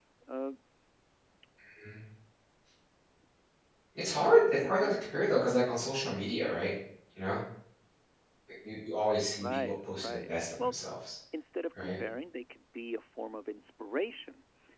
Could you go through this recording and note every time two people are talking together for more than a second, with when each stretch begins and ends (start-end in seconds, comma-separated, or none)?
9.4-10.8